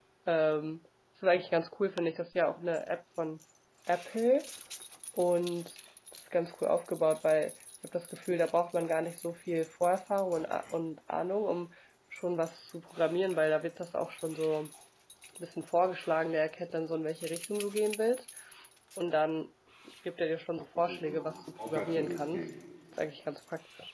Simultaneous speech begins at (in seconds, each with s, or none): 20.8 s